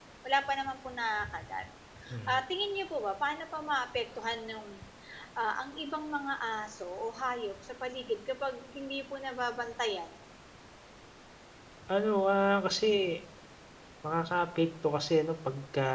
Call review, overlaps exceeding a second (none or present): none